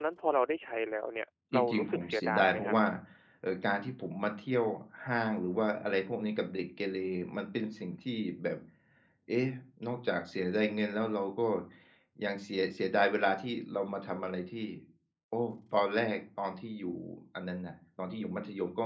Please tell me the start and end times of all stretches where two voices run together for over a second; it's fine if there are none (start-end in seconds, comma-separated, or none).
1.5-2.8